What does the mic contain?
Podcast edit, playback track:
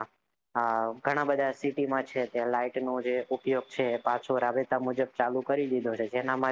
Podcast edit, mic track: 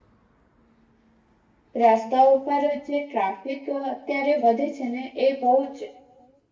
user only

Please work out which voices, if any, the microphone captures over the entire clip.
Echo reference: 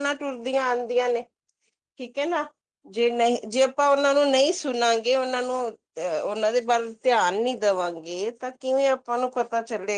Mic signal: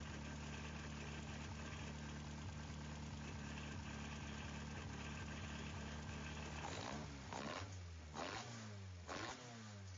neither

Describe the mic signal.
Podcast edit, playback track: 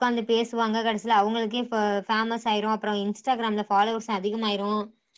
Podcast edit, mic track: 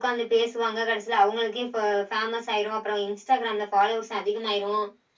echo only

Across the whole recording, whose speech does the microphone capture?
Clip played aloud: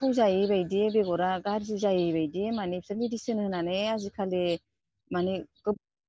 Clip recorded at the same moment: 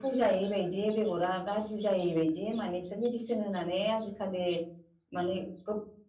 echo only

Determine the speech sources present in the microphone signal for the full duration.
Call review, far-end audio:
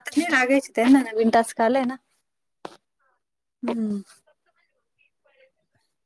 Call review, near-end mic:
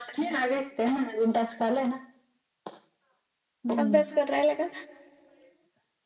both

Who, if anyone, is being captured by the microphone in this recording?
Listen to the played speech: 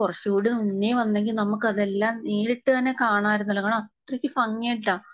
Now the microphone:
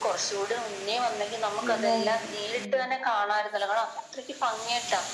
both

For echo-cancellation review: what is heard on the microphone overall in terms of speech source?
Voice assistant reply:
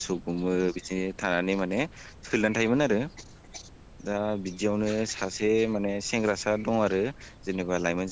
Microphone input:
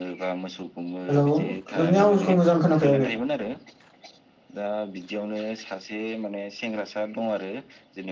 both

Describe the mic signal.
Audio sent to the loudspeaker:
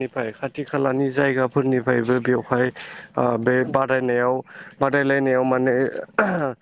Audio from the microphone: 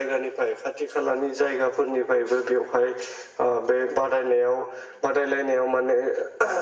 echo only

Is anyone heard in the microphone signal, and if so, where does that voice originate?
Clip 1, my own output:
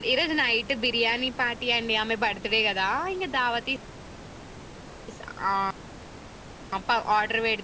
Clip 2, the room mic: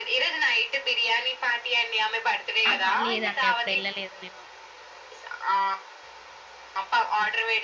both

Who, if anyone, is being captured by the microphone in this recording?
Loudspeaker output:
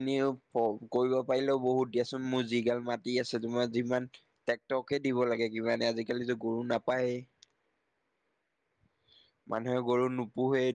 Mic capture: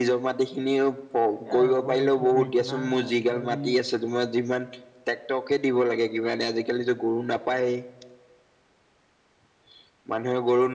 both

